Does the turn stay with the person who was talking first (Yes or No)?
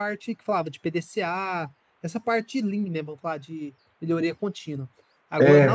Yes